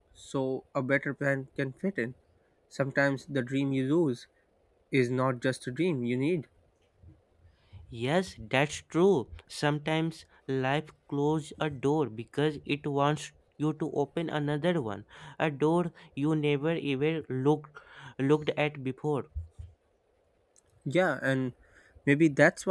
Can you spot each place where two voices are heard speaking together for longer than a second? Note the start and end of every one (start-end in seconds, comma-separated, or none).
none